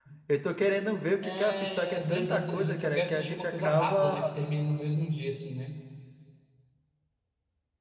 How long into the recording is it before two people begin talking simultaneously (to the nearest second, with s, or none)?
1 s